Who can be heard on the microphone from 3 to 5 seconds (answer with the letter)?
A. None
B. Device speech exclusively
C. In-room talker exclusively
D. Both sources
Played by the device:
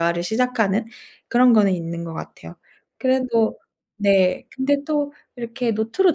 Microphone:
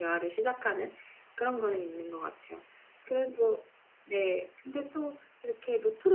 B